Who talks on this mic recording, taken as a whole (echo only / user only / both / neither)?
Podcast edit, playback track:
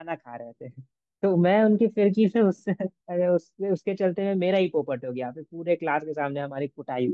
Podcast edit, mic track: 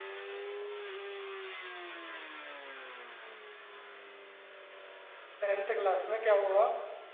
user only